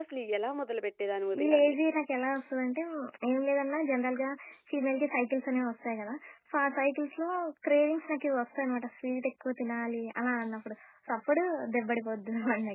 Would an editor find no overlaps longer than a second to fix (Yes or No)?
Yes